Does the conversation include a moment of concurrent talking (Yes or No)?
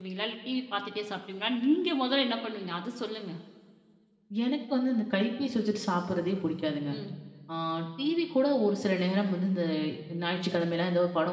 No